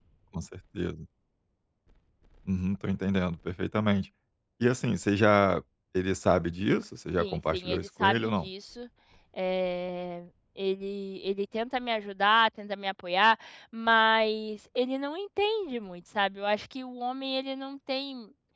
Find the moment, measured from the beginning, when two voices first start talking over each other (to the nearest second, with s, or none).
7 s